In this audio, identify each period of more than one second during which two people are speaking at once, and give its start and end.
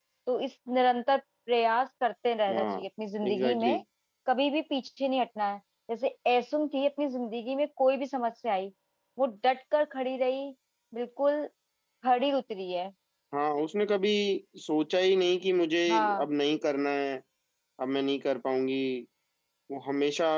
none

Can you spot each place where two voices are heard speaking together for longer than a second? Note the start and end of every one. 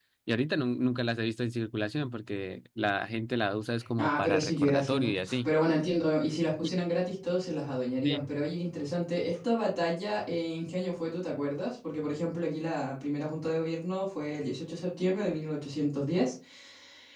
4.0-5.5

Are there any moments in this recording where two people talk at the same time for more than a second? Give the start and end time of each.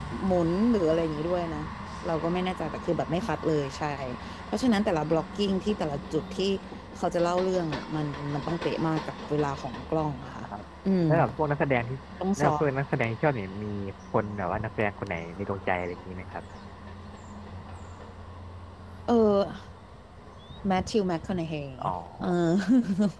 none

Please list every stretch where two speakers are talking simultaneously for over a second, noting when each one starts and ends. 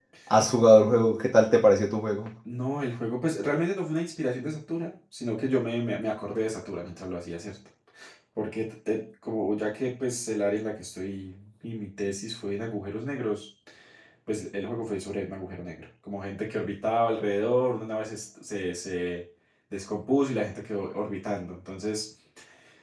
none

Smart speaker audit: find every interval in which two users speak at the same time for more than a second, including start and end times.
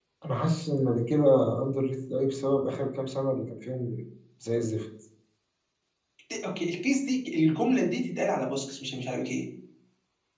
none

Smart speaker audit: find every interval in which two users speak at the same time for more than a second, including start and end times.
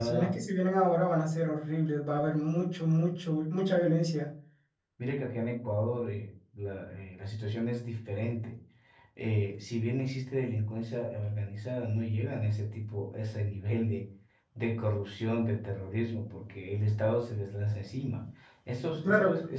none

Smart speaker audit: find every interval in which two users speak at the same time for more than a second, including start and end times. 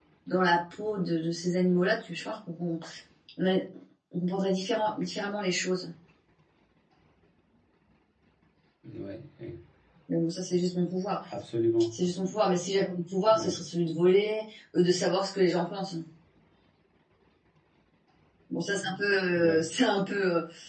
none

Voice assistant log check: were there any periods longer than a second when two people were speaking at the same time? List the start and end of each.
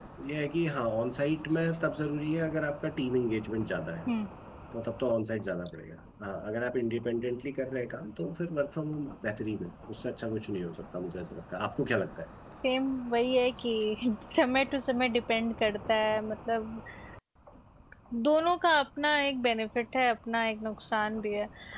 none

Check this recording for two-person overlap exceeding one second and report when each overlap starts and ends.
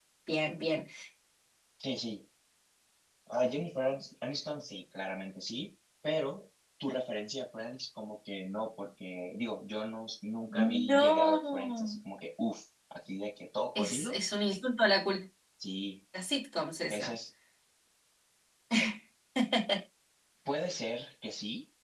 10.5-12.0

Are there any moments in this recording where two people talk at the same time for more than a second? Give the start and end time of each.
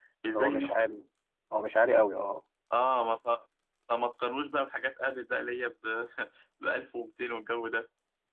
none

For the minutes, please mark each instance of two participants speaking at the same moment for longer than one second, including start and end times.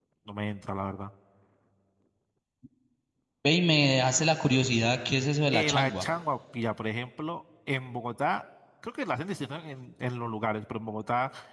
none

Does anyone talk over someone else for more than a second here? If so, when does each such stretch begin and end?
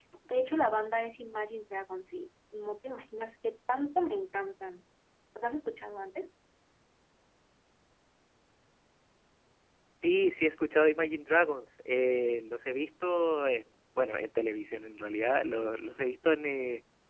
none

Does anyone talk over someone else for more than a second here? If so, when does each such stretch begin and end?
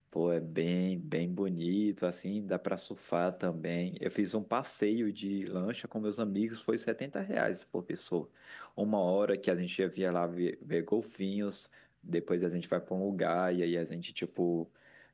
none

